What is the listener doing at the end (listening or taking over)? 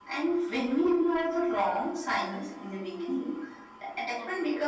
listening